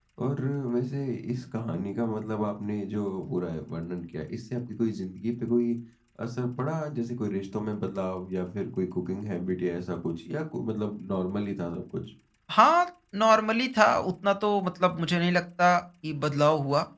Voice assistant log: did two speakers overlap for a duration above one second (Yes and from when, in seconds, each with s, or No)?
No